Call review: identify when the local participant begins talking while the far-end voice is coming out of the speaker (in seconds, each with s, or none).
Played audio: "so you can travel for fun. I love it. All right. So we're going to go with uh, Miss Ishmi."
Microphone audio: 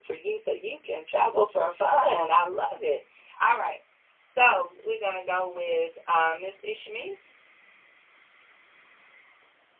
none